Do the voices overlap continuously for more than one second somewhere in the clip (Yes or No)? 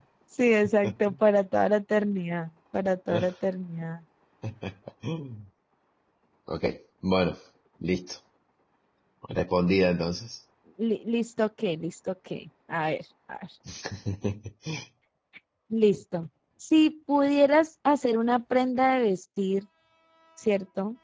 No